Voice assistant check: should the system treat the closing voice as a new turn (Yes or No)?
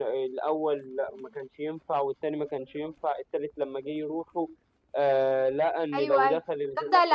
Yes